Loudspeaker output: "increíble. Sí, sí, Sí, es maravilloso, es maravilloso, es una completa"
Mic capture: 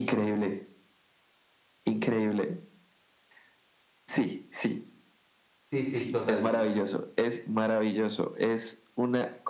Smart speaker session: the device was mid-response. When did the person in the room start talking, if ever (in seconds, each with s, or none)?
5.7 s